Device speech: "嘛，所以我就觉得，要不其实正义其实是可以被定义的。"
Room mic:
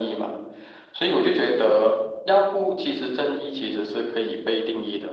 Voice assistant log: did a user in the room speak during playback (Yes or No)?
No